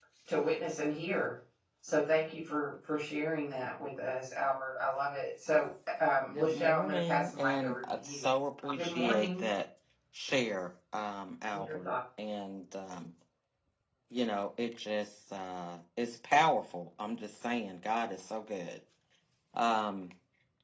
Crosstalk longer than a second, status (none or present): present